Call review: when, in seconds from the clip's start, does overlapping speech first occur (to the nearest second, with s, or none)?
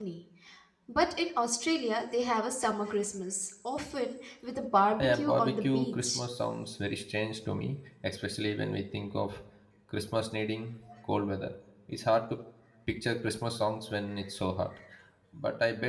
5 s